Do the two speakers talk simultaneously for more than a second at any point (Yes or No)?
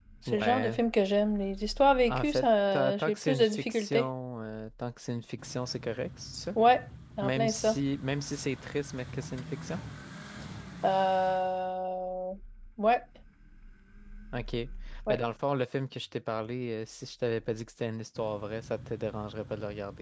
Yes